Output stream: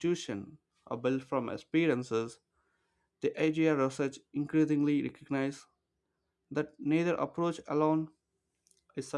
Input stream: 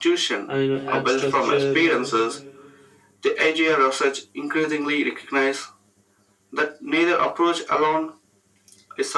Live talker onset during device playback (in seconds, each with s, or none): 0.5 s